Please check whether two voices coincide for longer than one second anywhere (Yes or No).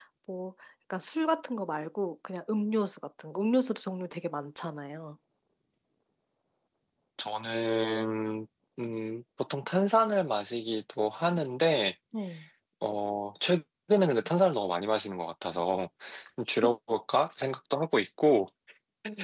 No